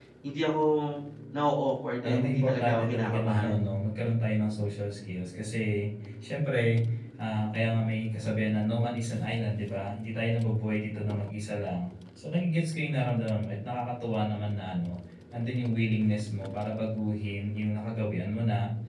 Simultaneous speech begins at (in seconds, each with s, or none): 2.0 s